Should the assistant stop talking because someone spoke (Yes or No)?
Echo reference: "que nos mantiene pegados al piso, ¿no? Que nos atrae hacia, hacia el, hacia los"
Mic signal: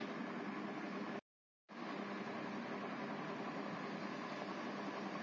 No